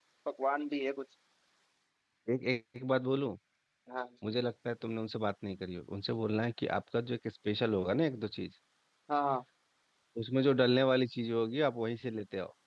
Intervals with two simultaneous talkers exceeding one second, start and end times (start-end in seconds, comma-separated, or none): none